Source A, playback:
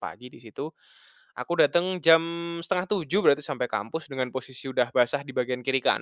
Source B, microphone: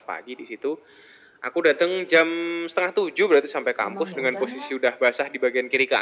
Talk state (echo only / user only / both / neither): both